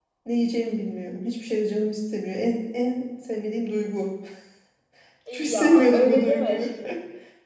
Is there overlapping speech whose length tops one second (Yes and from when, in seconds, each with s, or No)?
Yes, from 5.3 s